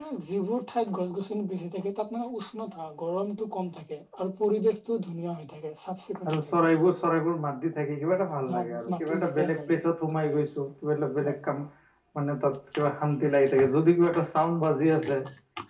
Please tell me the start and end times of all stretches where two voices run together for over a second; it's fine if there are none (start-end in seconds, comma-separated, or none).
8.5-9.7